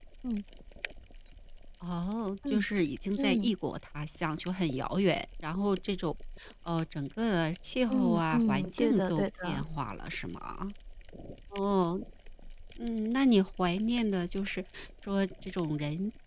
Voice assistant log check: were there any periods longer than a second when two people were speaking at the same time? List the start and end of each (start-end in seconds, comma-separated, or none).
7.9-9.6